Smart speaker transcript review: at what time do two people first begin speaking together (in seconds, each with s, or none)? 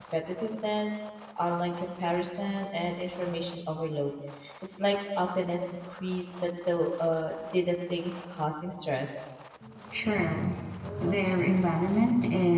none